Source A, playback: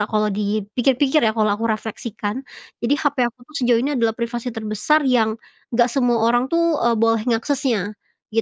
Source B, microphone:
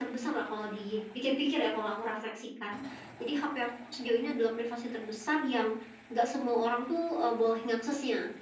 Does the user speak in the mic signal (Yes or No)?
No